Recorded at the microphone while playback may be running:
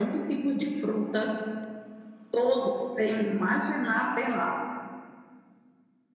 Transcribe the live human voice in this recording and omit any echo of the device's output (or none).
none